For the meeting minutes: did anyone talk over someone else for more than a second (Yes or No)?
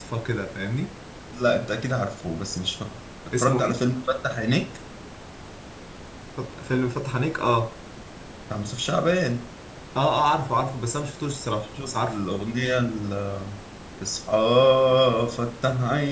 No